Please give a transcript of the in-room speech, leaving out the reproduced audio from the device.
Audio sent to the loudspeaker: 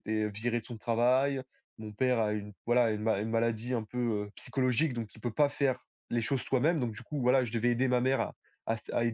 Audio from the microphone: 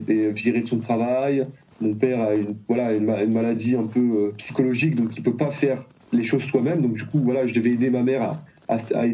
none

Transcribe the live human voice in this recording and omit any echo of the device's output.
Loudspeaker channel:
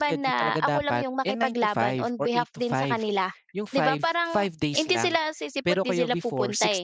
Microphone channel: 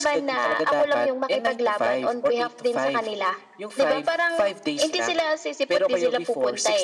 none

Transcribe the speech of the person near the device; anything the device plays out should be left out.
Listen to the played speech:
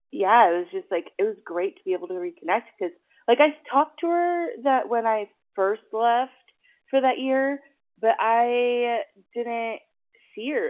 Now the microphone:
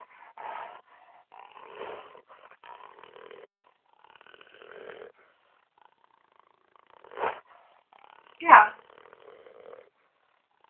Yeah.

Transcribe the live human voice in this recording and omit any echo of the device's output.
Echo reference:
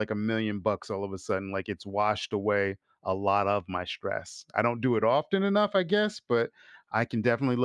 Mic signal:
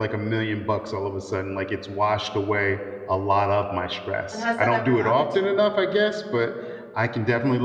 and has that ever happened to

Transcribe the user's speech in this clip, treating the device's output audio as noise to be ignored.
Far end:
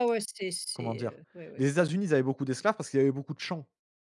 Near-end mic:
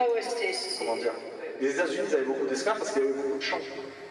none

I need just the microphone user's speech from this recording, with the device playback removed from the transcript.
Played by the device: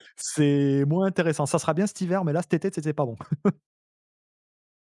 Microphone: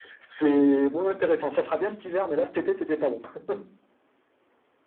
none

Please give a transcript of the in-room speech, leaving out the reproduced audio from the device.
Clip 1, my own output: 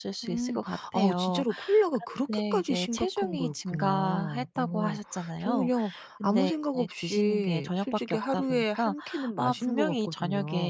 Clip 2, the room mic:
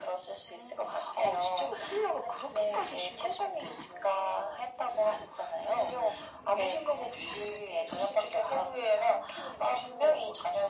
none

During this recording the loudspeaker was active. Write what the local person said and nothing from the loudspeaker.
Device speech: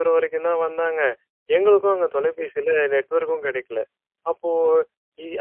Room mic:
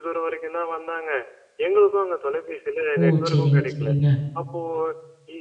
ஓ! சரிங்க, சரிங்க.

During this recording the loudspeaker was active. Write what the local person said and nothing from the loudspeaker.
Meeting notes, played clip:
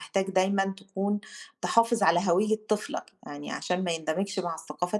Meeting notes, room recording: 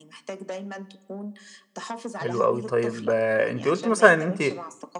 حلو أوي. طيب آه، أنتِ قُلتِ مثلًا إن أنتِ

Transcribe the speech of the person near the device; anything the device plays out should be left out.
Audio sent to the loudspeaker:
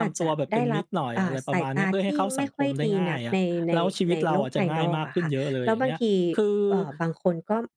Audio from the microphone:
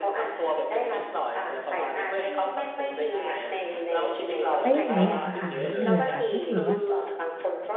แล้วอย่างเงี้ยอยากจะถามนิดหนึ่งอะค่ะถ้าสมมติว่า

